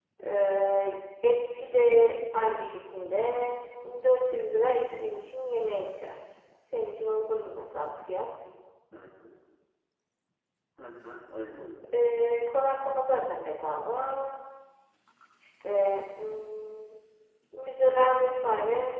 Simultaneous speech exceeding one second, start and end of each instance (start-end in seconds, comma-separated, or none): none